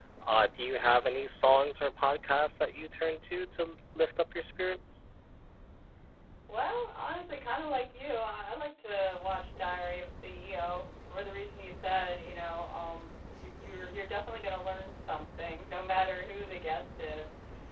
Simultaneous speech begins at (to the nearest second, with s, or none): none